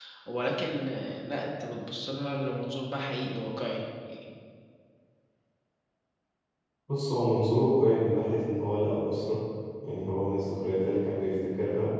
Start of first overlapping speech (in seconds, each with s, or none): none